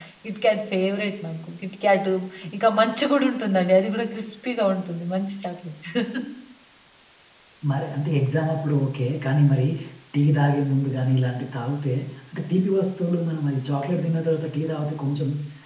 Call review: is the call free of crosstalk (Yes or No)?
Yes